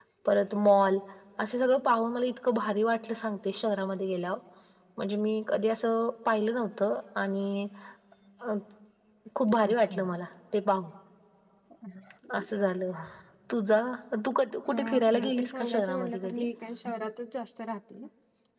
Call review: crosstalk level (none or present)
present